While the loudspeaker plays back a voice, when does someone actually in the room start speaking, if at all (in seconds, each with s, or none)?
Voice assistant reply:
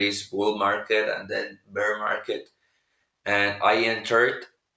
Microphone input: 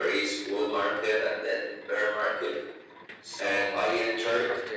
3.2 s